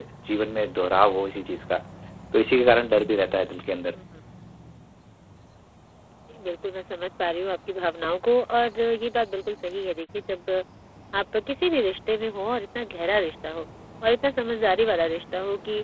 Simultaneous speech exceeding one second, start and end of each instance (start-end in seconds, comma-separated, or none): none